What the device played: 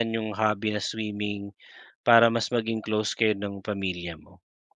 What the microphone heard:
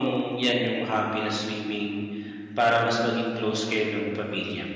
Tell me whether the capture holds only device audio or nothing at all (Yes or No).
Yes